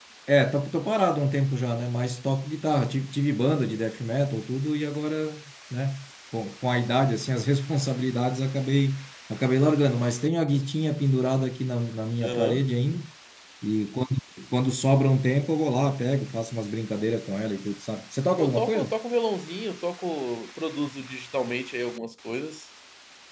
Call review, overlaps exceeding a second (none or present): none